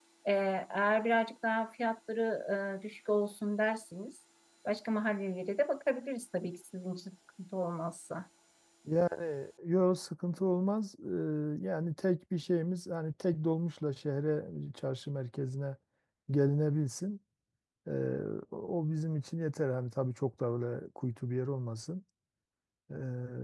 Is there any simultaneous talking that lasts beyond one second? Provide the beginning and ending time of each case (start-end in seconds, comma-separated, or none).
none